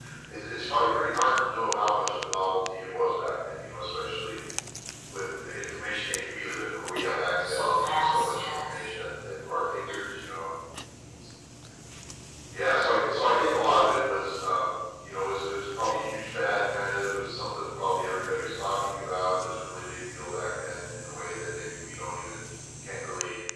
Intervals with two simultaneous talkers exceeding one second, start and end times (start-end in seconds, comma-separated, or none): 7.4-8.8